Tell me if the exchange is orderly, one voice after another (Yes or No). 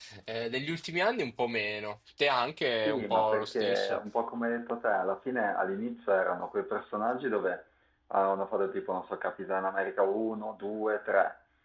No